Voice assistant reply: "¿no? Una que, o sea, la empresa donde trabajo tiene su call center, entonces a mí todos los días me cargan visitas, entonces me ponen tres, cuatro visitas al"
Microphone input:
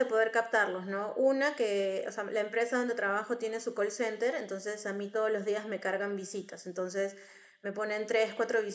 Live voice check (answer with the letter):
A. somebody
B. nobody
B